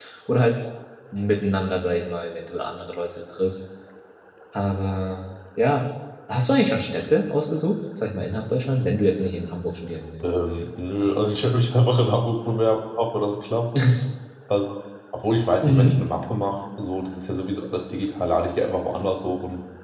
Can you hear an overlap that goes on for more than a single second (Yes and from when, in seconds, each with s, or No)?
No